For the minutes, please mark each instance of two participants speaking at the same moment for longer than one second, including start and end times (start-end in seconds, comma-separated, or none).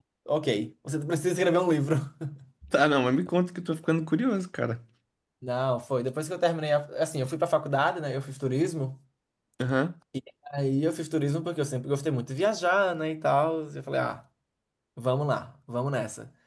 none